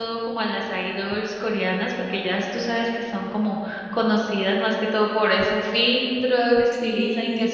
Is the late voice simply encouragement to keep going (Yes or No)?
Yes